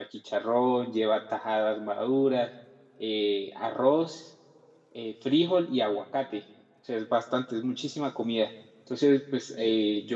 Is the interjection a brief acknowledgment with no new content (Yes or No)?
Yes